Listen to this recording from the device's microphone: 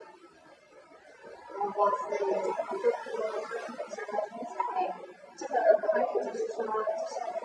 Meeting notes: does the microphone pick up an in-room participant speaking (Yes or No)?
No